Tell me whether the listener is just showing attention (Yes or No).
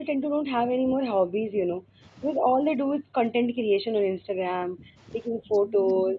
Yes